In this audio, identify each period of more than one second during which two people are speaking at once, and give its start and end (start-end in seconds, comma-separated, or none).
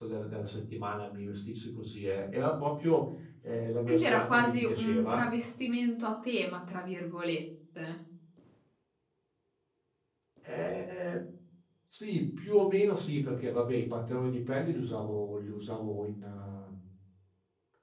3.9-5.2